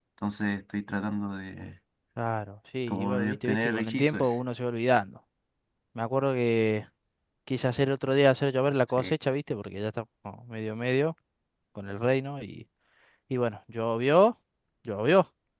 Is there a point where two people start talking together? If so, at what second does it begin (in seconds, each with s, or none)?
2.9 s